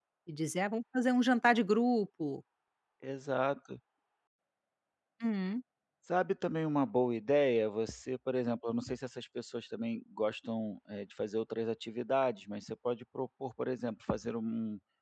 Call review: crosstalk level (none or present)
none